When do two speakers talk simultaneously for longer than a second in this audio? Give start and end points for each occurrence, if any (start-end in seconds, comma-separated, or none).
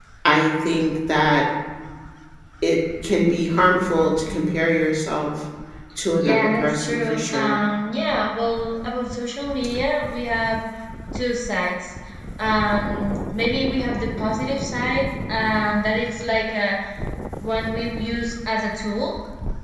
6.2-7.6